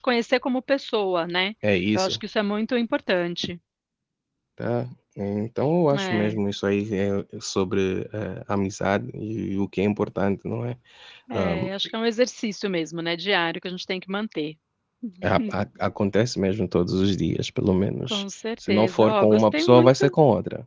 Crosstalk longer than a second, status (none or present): present